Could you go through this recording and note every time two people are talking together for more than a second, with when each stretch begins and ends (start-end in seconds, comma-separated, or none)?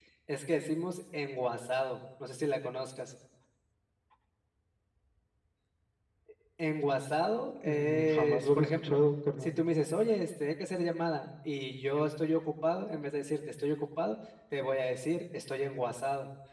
7.6-9.0